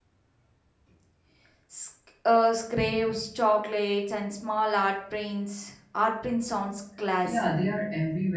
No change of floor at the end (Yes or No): No